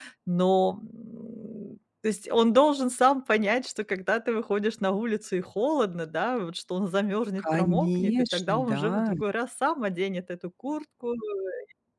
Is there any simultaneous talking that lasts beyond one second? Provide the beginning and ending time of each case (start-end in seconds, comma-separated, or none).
7.4-9.1